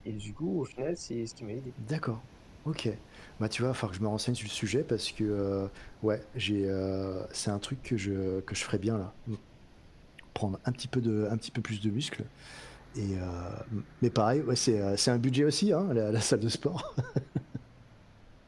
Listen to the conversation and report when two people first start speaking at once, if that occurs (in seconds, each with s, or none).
none